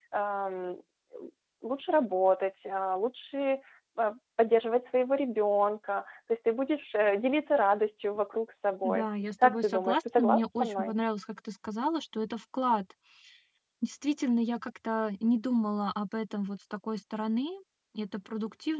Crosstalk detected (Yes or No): Yes